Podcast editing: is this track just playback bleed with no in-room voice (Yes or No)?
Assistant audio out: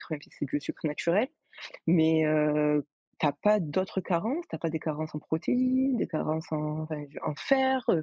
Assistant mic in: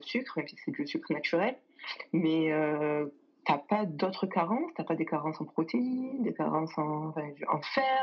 Yes